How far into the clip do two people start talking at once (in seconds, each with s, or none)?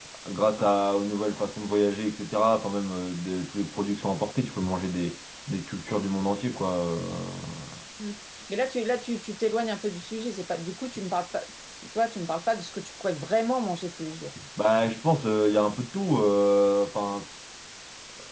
none